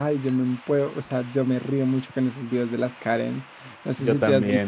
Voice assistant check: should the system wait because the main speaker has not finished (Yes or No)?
Yes